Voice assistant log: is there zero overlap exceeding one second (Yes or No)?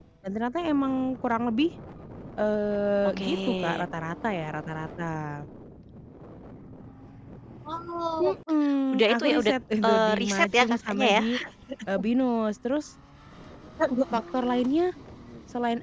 No